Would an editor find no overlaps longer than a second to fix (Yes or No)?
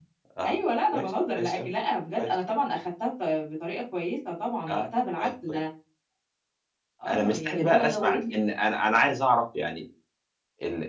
No